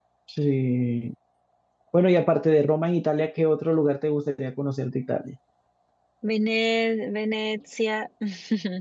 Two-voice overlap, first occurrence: none

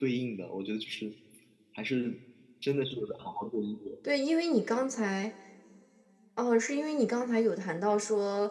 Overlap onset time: none

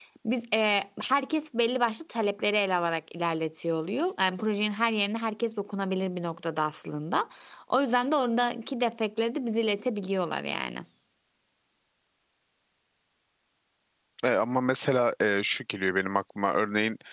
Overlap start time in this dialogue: none

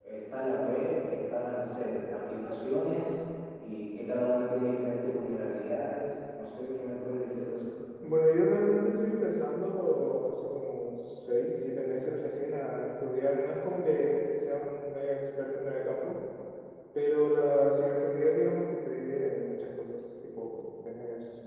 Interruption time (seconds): none

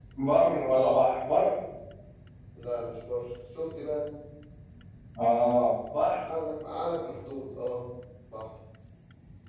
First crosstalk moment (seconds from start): none

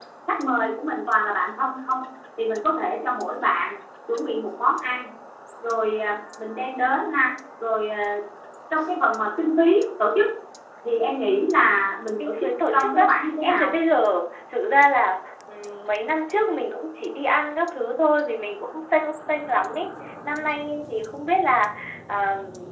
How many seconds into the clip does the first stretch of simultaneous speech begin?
12.2 s

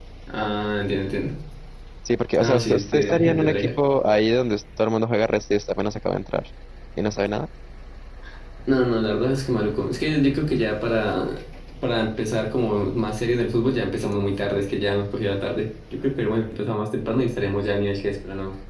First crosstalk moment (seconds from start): 2.4 s

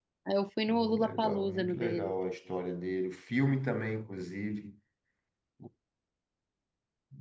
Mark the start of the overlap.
0.7 s

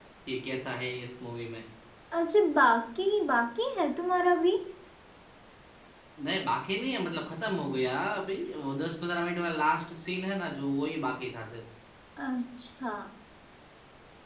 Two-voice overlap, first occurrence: none

